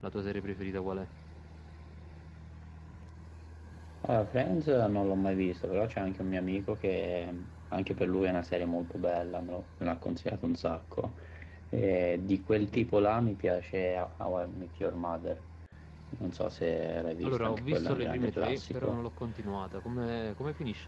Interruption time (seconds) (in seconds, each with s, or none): 17.2 s